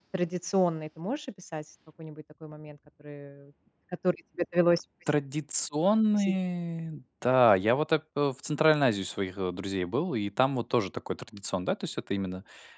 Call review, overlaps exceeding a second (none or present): none